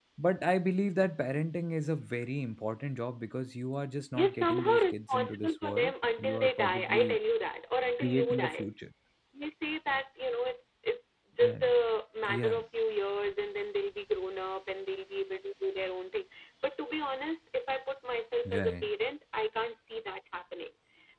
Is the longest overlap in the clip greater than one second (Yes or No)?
Yes